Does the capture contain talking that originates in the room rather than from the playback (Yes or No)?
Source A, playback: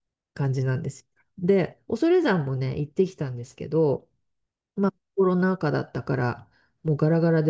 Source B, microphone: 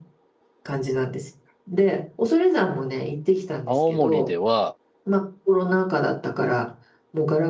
Yes